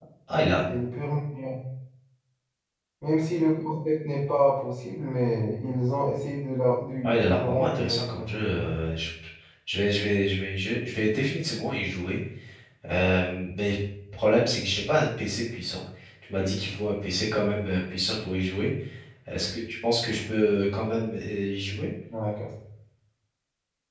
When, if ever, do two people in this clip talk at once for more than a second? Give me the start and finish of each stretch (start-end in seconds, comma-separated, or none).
7.0-8.7